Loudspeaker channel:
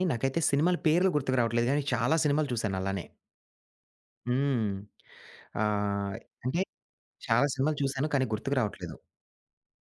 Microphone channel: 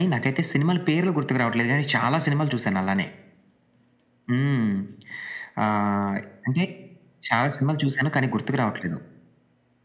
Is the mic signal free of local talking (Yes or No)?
Yes